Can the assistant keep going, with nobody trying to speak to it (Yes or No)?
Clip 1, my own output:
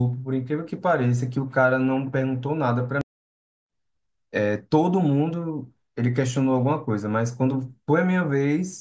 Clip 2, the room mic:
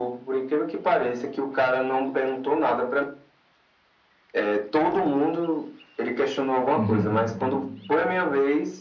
No